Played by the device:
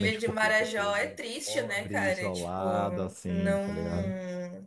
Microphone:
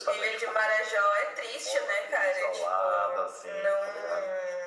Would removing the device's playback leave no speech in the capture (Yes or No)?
Yes